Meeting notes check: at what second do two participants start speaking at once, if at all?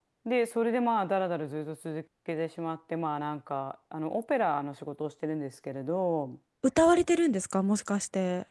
none

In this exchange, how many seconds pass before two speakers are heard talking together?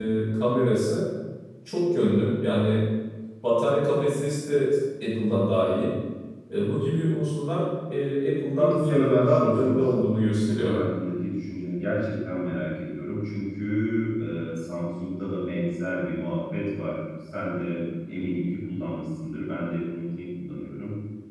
9 s

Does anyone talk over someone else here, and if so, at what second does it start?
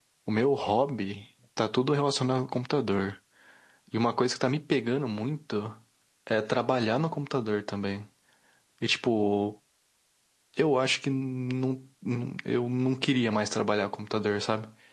none

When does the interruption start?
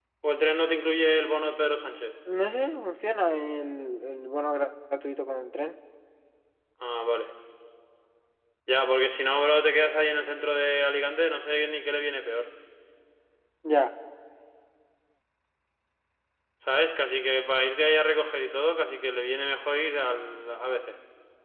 none

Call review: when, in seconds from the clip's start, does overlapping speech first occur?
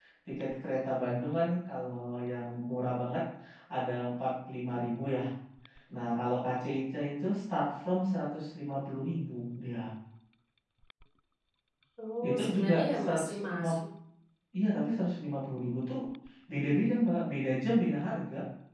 12 s

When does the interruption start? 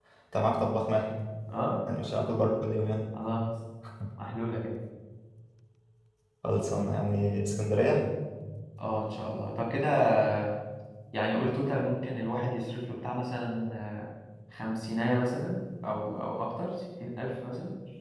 none

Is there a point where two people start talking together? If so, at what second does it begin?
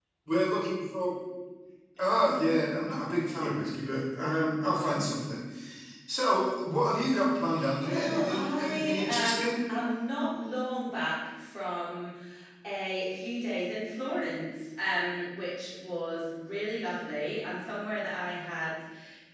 8 s

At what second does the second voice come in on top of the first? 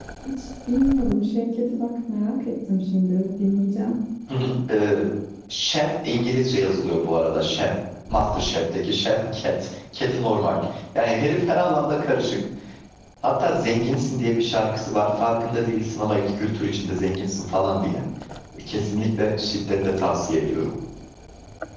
none

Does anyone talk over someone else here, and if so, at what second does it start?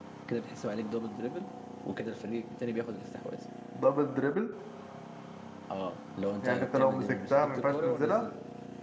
6 s

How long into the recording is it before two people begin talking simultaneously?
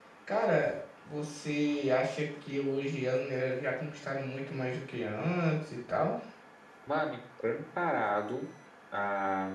none

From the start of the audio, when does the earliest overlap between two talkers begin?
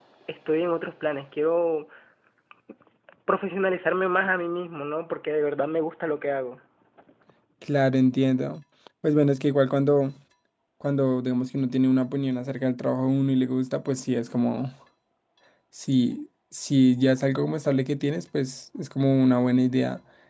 none

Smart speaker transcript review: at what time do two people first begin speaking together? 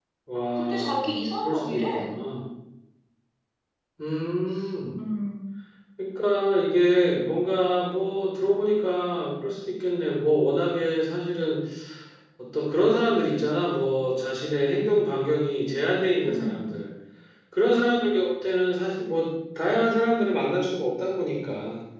1 s

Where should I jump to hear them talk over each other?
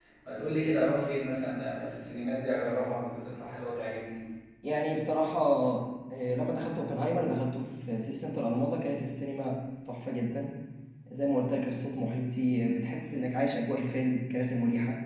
none

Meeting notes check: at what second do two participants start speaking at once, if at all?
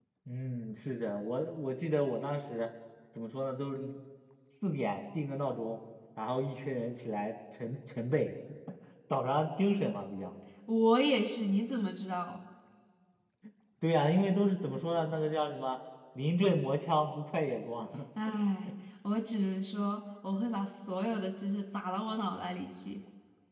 none

